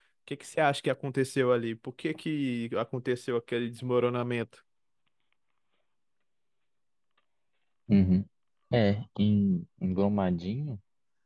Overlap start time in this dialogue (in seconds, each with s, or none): none